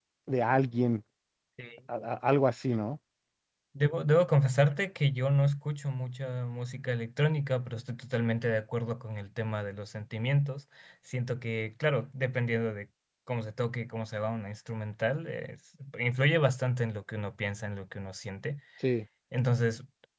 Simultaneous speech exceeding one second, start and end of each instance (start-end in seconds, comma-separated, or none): none